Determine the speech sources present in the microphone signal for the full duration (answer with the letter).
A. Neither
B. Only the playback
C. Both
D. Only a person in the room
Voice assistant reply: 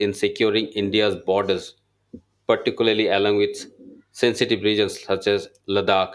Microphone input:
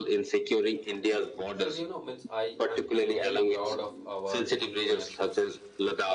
C